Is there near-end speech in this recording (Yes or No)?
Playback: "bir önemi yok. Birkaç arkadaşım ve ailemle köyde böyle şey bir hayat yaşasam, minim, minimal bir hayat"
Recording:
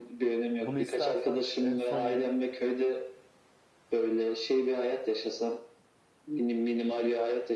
Yes